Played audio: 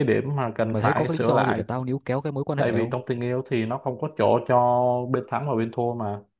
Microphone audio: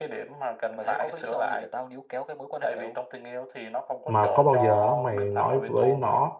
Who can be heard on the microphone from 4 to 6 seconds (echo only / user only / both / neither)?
both